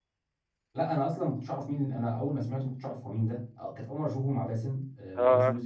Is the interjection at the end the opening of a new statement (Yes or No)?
No